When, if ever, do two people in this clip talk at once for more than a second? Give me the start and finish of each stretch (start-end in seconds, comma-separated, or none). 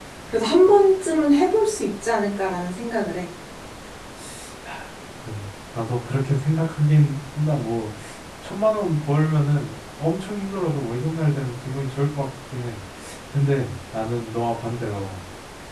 none